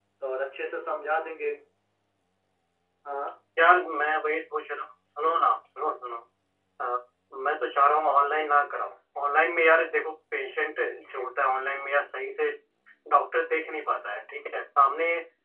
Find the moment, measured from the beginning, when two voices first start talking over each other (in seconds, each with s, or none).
none